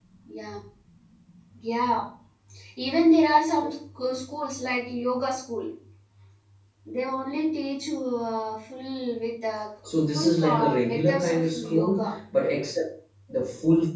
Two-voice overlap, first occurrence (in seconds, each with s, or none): 10.1 s